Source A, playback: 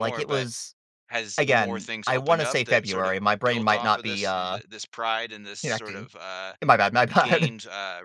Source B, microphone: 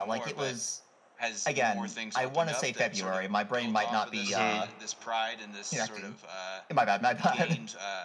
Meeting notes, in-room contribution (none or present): present